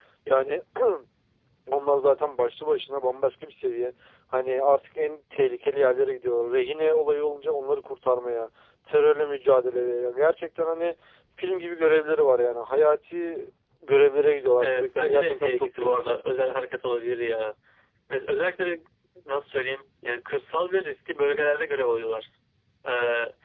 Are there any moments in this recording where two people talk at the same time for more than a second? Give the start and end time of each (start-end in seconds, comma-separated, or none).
14.6-16.2